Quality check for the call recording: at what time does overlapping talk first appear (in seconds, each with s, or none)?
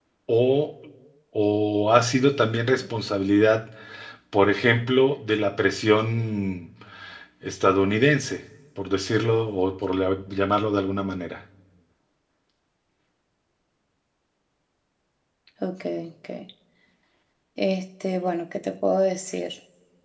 none